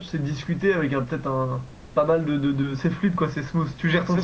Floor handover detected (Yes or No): Yes